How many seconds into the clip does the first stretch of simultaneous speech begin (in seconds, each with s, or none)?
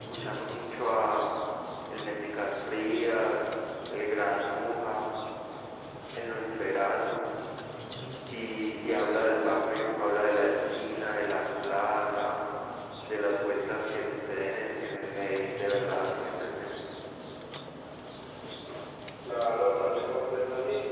none